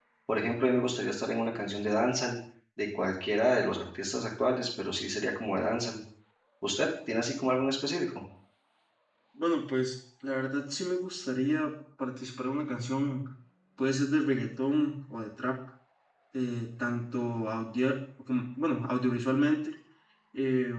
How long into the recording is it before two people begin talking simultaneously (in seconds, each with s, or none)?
none